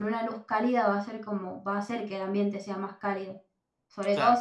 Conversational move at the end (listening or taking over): listening